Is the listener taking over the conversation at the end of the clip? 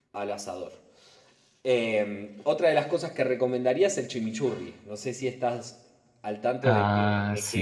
Yes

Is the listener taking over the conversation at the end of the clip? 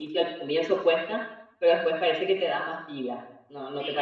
Yes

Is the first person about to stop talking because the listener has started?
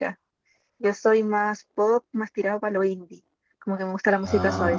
No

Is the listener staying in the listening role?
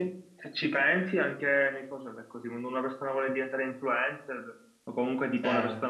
Yes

